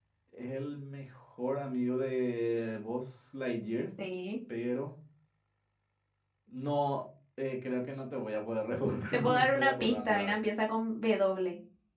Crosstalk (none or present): present